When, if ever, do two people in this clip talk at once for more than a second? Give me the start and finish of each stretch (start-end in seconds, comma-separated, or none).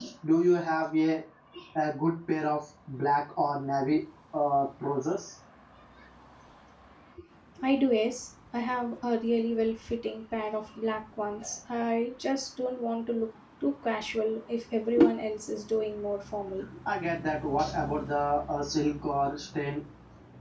none